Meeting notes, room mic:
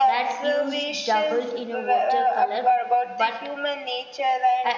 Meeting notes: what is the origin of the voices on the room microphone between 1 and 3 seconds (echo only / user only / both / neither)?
both